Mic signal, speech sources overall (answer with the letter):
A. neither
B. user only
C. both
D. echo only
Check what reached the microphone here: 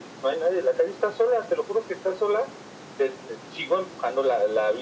D